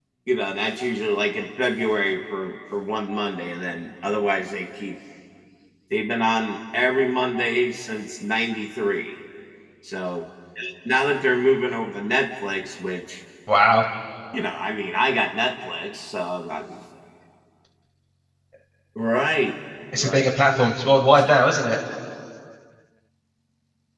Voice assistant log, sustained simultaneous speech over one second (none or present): none